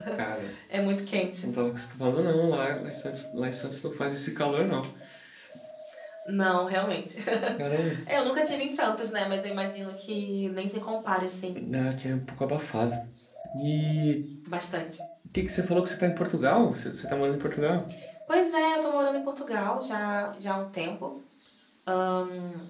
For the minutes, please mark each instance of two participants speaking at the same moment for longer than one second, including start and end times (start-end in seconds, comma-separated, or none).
none